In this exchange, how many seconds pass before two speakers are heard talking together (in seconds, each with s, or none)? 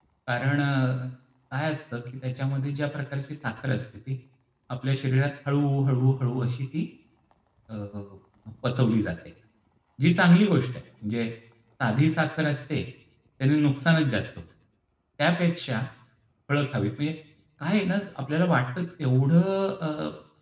none